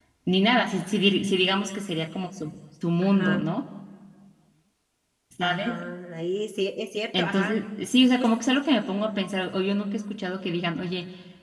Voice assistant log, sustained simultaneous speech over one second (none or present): none